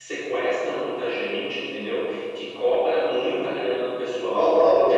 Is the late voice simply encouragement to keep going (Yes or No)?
No